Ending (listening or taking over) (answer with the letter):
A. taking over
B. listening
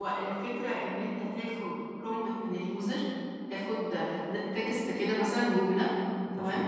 B